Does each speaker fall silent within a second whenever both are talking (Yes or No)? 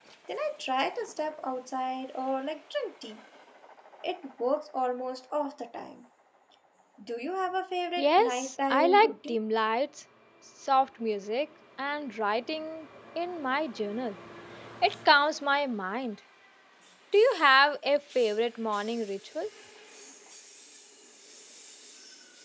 No